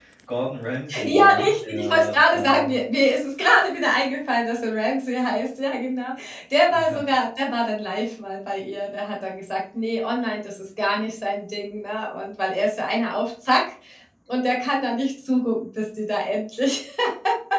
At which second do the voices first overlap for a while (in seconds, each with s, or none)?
1.0 s